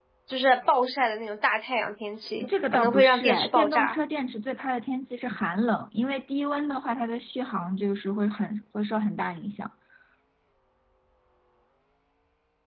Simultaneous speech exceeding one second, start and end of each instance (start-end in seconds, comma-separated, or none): 2.5-4.0